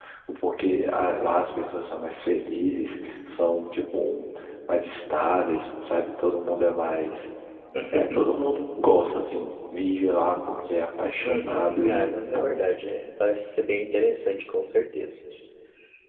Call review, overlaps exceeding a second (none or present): present